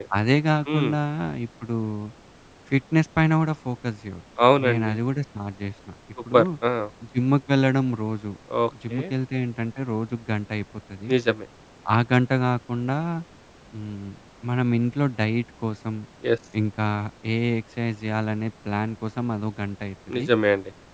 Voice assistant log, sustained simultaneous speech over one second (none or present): none